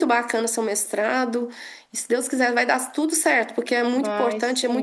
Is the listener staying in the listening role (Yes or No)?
Yes